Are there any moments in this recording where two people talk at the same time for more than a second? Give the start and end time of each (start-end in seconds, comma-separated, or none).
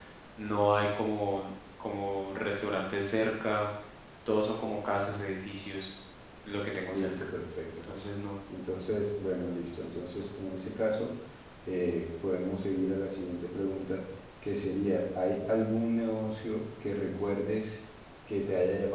none